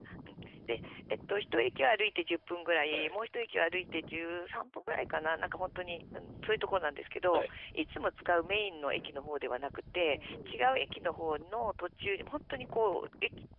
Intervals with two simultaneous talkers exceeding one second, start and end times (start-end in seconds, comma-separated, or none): 10.1-11.3